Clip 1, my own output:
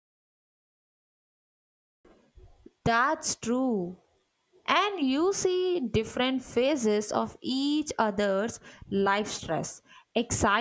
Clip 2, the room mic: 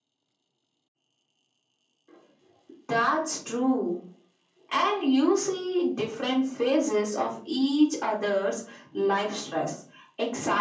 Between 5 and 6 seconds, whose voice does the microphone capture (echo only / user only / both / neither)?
echo only